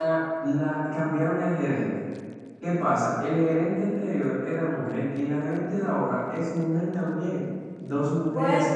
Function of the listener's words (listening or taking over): listening